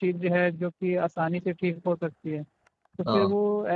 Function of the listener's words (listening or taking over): listening